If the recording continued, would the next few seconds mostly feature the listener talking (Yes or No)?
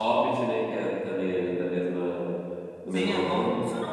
Yes